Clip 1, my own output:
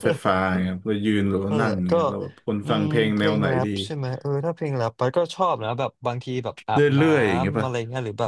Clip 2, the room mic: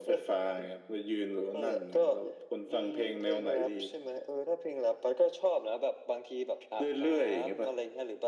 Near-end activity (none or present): none